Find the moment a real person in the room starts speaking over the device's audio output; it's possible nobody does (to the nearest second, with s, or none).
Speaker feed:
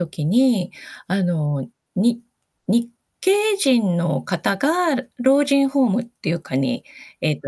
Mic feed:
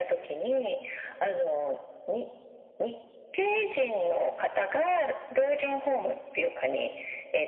none